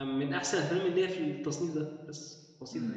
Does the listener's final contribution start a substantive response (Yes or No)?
Yes